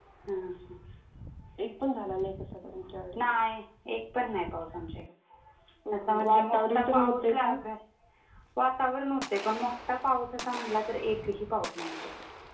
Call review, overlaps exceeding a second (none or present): present